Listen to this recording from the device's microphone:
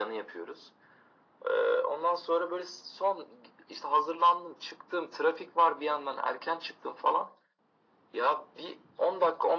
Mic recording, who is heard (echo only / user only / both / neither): echo only